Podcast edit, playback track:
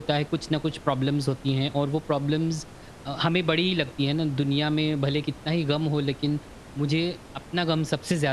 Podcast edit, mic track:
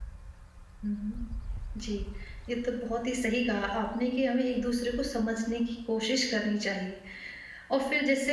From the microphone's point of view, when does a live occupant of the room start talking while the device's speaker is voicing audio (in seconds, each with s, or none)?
0.8 s